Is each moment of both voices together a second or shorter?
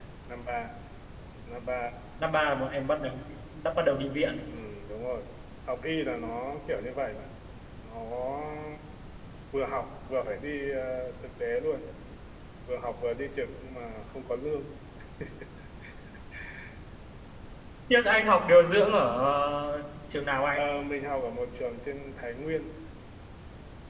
Yes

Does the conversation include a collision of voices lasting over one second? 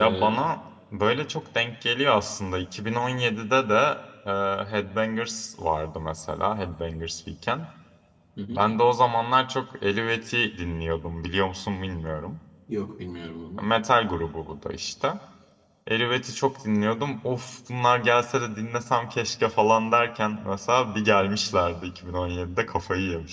No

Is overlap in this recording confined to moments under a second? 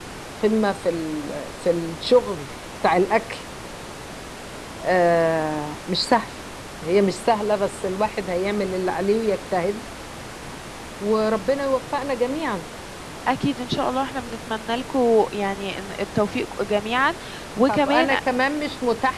Yes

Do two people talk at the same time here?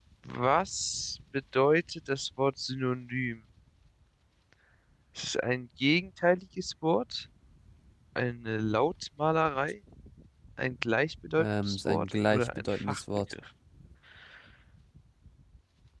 Yes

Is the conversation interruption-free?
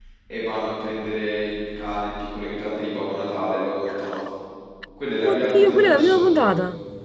No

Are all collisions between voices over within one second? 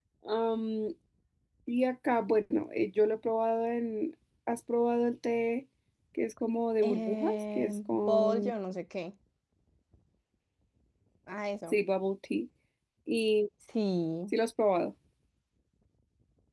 No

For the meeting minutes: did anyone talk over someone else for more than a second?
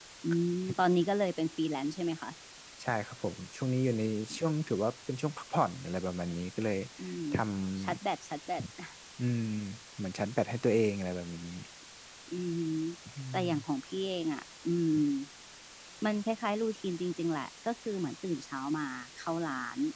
No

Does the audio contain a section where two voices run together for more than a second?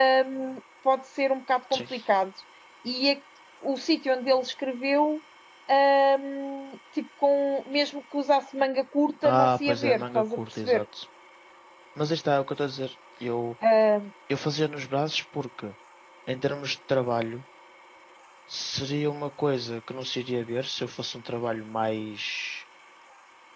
Yes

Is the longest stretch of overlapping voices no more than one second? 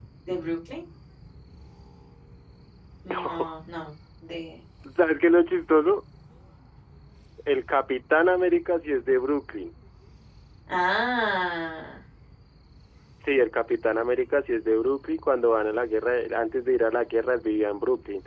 Yes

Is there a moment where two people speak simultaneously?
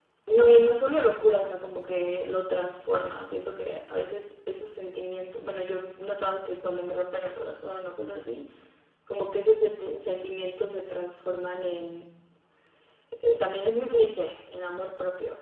No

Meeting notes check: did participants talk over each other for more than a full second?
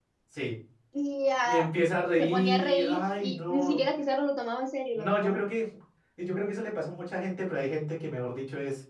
Yes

